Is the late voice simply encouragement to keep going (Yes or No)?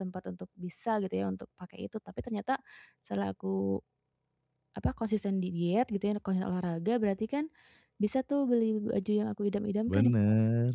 No